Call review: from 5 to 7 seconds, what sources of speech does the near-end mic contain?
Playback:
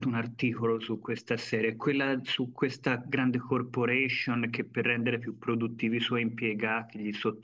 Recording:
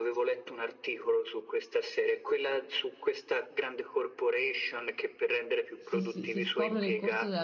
both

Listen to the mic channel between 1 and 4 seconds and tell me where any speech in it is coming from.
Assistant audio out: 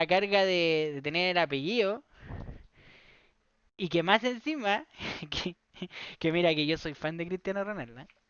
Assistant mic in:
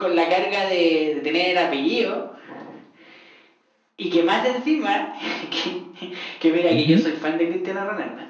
echo only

